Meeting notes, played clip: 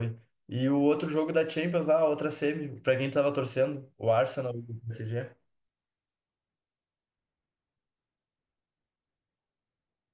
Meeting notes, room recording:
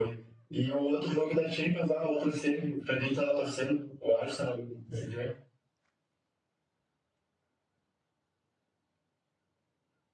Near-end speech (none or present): none